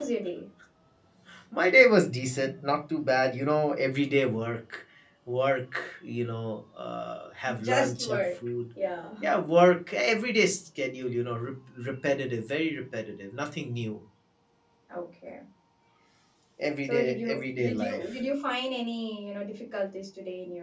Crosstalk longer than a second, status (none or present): present